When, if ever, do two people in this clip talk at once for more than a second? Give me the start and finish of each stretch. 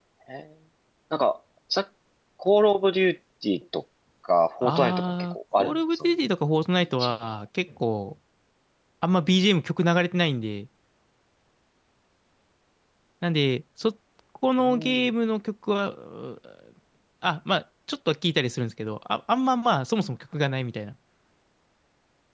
4.6-6.3

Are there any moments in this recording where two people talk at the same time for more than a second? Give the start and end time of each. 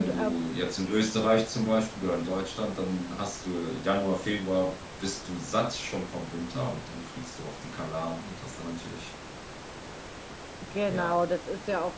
none

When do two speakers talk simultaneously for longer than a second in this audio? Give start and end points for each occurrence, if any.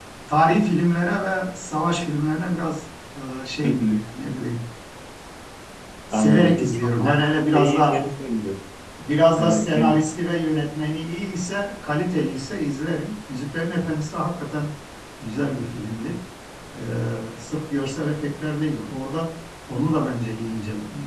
6.1-8.1

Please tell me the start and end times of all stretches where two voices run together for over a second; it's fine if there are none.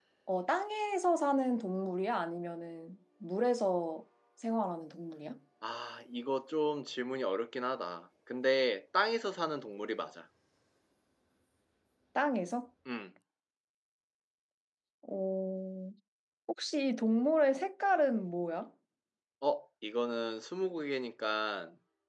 none

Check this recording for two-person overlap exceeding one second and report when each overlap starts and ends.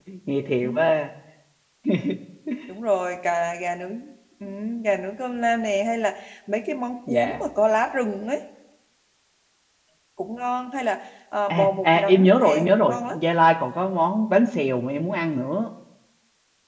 11.5-13.2

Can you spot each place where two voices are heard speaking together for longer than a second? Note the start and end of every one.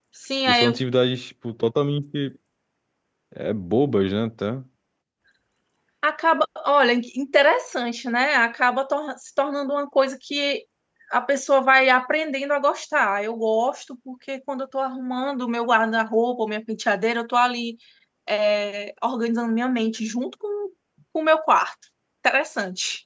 none

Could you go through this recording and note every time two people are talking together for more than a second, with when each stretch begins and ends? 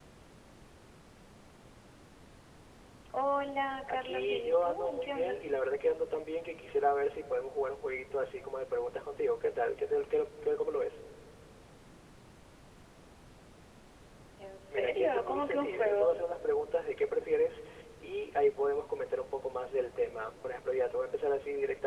3.9-5.4, 14.7-16.1

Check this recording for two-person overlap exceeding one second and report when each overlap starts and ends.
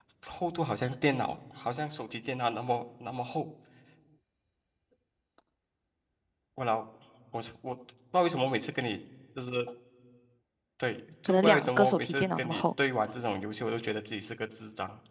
11.2-12.6

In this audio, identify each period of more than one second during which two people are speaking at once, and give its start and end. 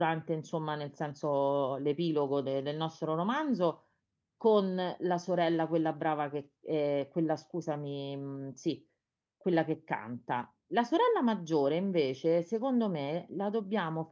none

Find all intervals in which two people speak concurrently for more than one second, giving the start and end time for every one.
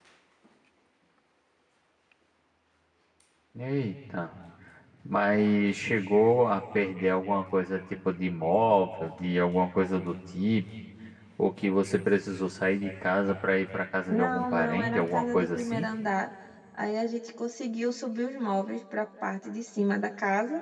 14.1-15.8

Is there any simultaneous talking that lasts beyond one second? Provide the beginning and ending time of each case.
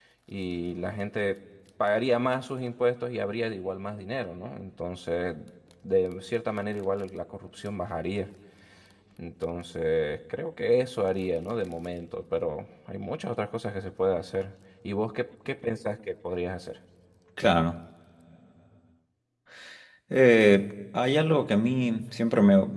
none

